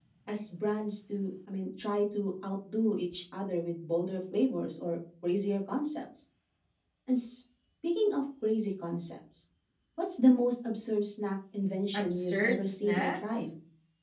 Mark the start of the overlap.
11.9 s

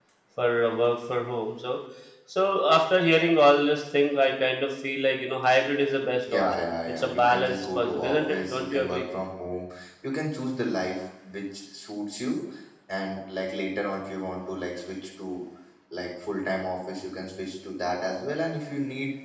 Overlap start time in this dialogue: 6.3 s

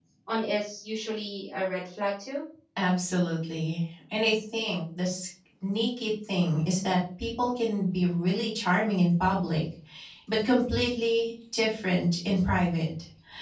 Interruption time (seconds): none

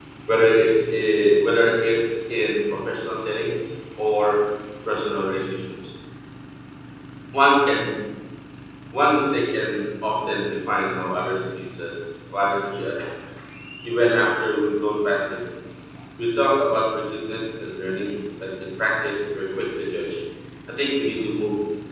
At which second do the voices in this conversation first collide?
none

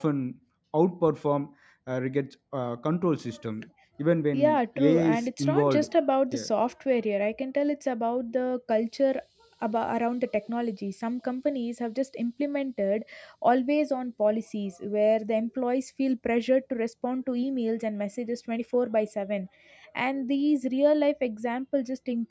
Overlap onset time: 4.3 s

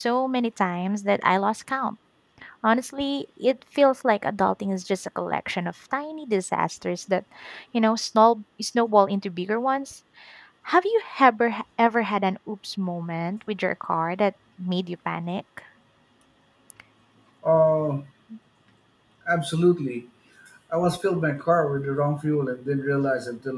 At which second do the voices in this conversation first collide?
none

